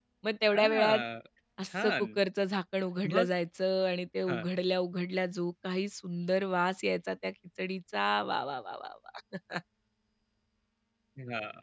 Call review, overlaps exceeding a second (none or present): none